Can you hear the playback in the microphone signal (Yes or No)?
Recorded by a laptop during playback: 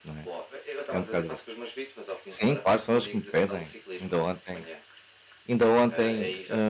Yes